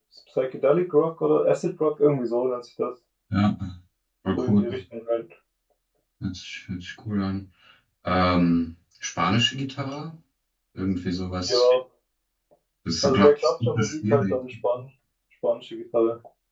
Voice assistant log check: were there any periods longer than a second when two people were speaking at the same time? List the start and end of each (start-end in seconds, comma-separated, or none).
13.0-14.4